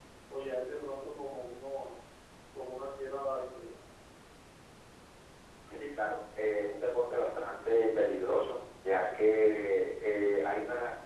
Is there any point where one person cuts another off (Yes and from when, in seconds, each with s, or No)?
No